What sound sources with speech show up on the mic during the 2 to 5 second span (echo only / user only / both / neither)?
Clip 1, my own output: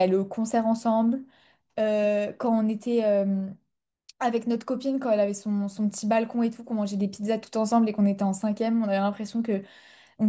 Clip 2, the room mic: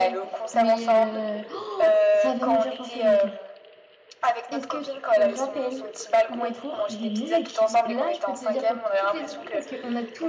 both